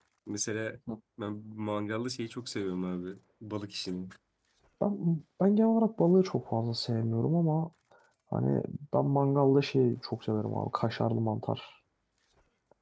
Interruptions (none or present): none